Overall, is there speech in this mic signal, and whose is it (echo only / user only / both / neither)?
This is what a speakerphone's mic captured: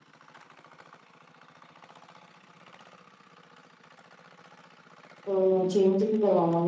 user only